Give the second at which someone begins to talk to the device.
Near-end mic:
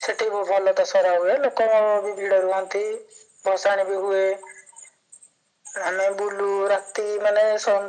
none

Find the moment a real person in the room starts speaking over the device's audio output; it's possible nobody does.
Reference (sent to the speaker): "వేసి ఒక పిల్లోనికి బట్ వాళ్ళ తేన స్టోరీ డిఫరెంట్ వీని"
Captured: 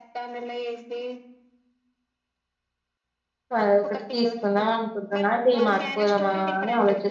4 s

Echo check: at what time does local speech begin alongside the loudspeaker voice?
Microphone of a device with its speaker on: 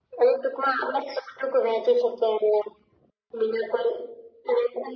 none

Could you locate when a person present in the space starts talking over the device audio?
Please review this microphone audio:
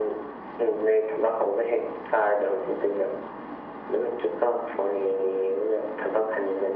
none

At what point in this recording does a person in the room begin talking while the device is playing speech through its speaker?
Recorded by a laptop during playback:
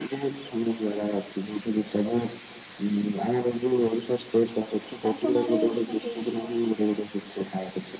5 s

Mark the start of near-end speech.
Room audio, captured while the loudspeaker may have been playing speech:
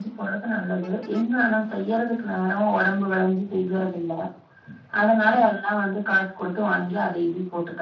none

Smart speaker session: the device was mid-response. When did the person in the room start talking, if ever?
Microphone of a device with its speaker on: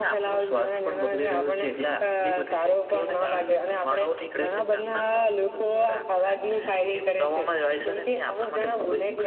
none

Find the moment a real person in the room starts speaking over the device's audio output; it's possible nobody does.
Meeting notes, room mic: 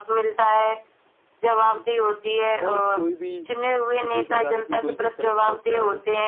3 s

